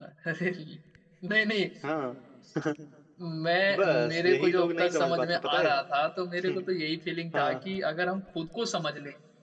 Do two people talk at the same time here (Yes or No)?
Yes